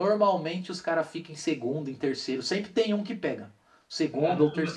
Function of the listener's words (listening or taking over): taking over